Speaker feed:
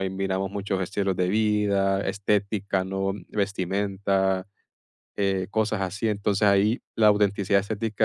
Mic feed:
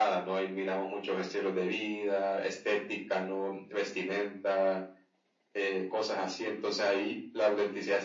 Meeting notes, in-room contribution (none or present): none